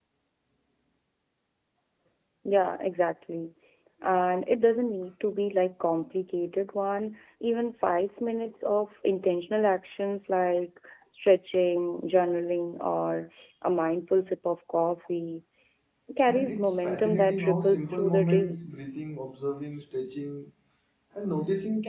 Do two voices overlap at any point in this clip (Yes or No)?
Yes